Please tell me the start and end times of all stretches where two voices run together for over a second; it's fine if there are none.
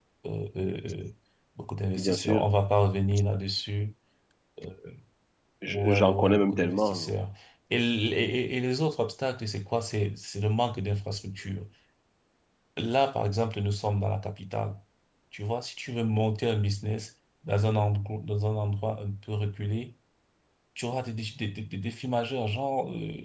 5.7-7.1

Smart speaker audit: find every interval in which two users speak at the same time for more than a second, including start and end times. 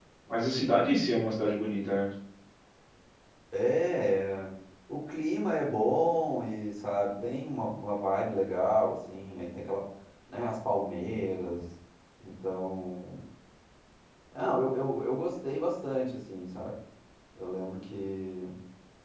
none

